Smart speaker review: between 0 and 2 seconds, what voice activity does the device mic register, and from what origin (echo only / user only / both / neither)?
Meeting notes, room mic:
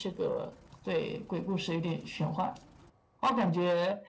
echo only